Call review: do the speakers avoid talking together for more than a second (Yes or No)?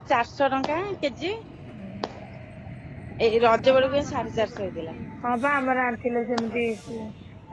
Yes